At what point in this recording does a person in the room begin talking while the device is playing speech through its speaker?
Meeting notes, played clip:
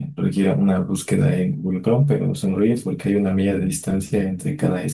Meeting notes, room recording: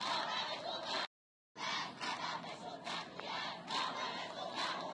none

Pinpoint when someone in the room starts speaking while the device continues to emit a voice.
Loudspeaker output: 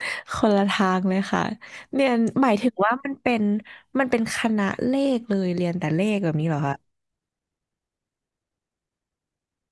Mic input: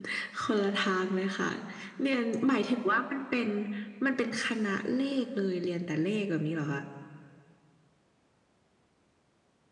none

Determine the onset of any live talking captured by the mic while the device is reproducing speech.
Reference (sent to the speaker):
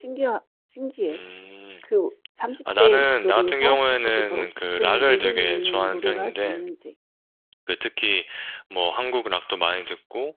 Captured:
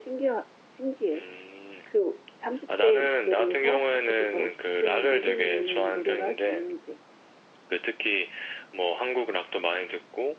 none

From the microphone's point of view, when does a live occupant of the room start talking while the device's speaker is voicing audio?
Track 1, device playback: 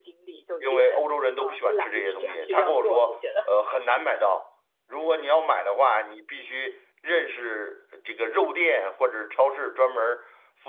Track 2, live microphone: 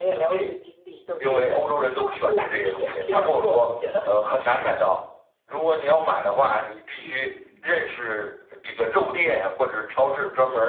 7.0 s

